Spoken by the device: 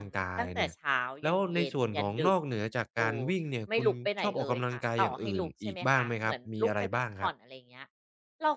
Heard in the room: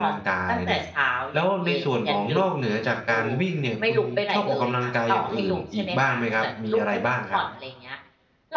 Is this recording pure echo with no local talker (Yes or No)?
Yes